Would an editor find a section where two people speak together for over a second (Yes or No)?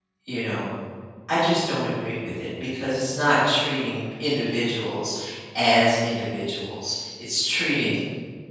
No